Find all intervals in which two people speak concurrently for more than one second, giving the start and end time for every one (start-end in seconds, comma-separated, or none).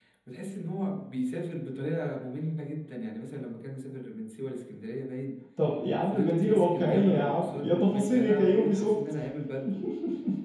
6.0-9.2